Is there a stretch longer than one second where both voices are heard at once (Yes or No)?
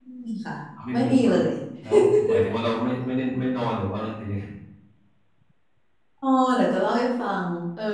No